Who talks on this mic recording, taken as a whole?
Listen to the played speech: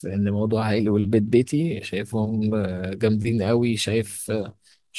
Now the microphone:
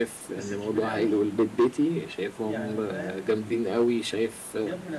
both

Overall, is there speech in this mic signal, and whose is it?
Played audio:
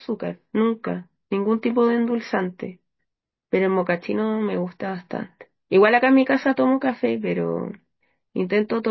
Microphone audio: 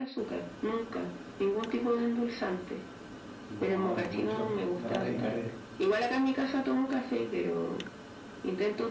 both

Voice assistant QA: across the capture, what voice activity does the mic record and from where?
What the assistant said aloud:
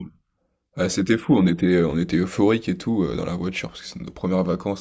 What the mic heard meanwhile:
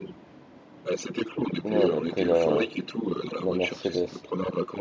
both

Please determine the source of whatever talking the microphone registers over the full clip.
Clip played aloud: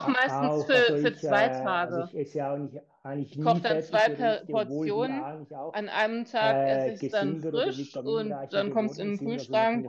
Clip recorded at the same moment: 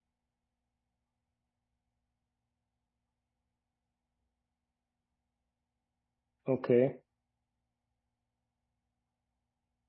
user only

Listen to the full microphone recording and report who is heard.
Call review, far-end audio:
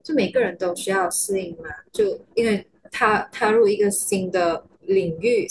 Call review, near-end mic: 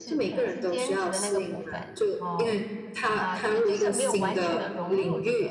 both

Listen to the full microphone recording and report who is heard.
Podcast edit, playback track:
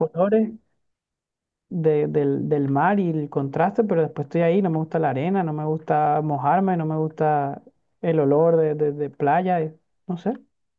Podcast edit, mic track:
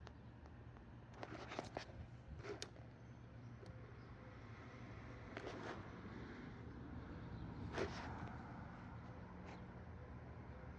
neither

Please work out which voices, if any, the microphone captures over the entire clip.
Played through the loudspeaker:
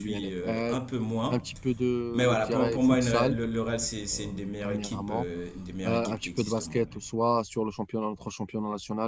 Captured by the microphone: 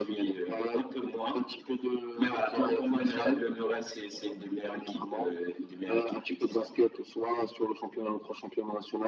echo only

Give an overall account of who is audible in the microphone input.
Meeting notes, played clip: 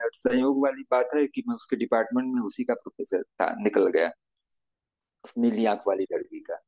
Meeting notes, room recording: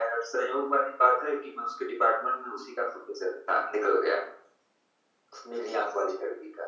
echo only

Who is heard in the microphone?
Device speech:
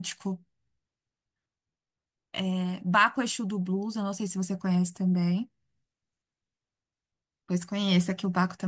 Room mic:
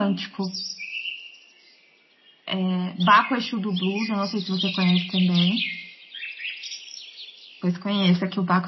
echo only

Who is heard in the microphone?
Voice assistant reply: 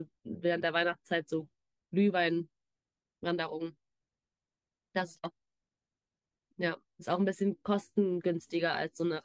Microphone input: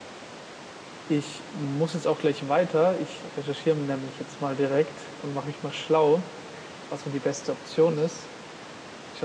user only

